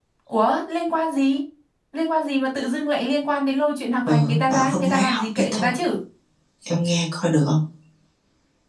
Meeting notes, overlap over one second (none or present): present